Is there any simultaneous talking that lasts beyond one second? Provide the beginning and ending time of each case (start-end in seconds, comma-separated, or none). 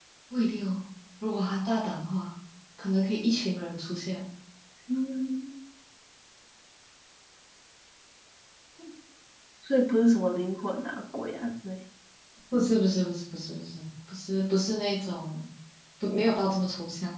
none